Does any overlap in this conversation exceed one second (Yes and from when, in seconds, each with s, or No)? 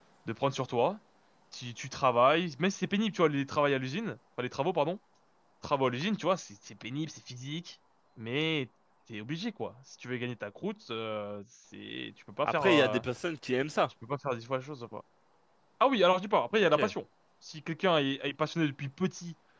No